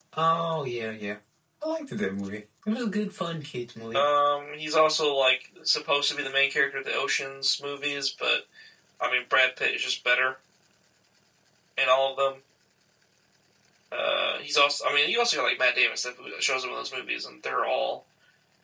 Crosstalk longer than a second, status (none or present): none